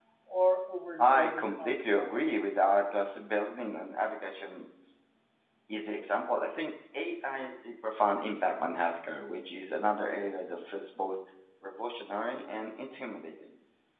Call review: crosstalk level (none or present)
present